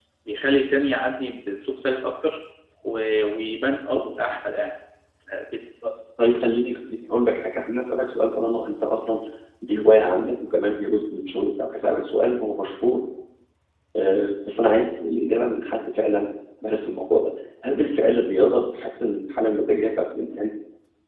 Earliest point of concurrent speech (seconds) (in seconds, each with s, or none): none